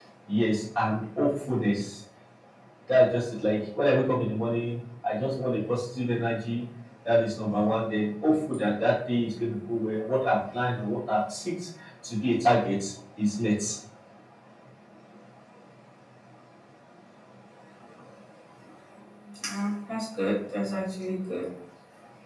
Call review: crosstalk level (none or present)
none